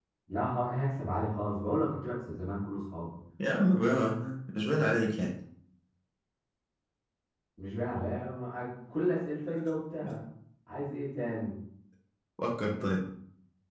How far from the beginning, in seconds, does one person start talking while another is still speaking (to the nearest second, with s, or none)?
none